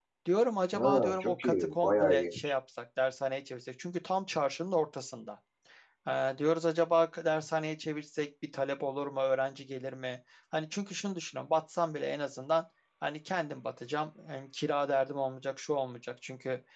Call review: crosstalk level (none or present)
present